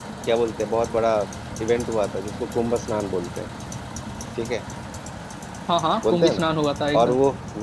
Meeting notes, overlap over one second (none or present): none